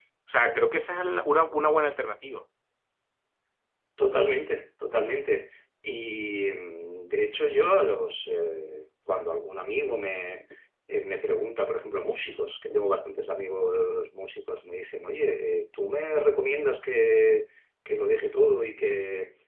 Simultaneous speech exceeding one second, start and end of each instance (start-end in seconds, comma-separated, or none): none